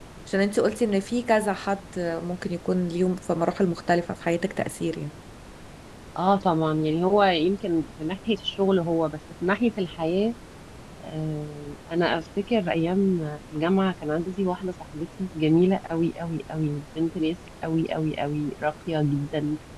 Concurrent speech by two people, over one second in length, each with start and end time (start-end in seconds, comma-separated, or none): none